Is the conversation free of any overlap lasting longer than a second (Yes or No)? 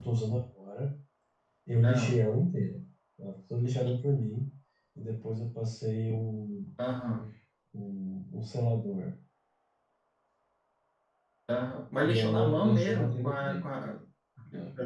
No